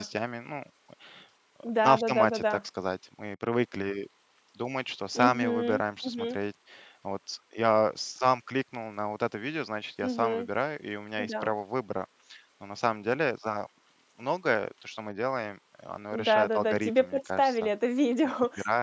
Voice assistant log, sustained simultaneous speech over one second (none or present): present